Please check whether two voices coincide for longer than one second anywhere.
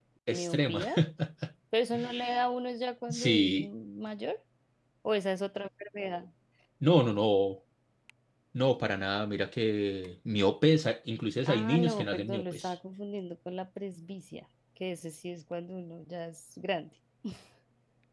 Yes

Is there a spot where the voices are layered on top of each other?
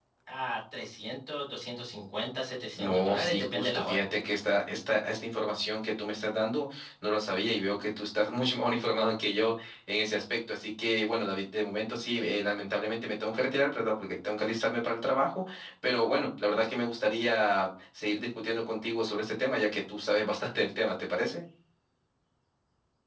Yes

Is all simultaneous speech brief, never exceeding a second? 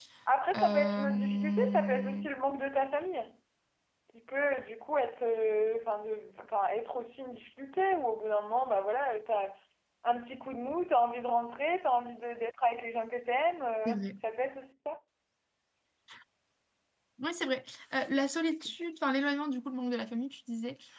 No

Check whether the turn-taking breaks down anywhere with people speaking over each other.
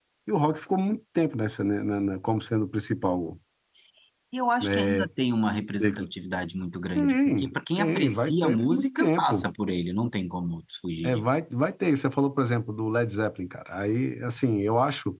Yes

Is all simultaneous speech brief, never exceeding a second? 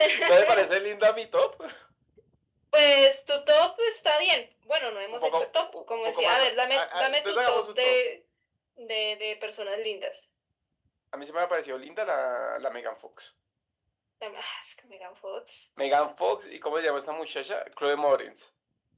No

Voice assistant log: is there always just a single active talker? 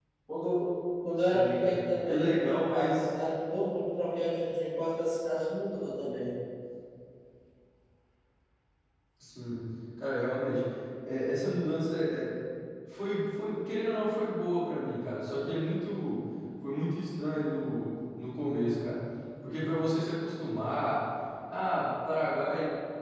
No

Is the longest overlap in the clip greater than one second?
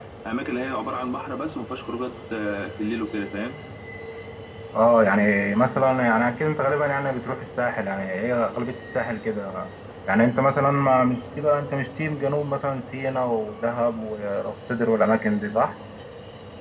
No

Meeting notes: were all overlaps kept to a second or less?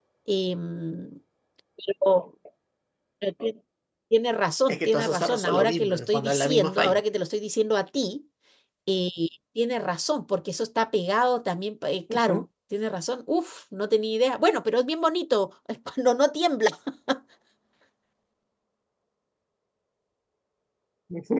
No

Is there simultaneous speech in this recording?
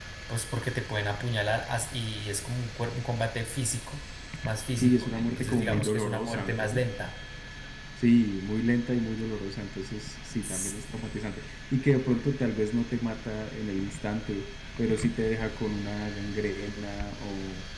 Yes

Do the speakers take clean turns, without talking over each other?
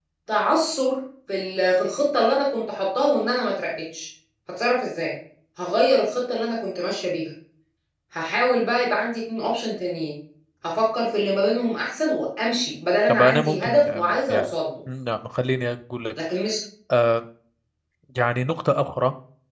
No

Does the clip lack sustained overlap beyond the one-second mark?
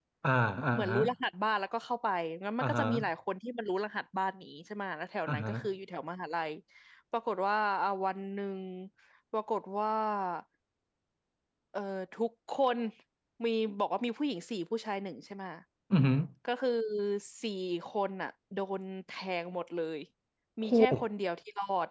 Yes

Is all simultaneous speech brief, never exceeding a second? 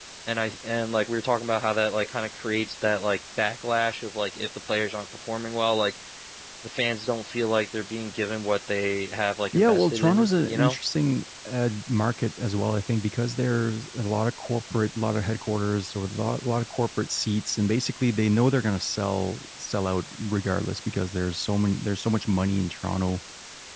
No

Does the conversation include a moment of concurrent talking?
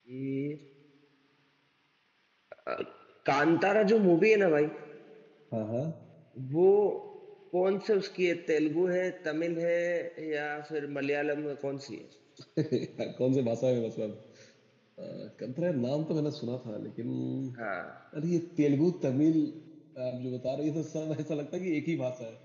No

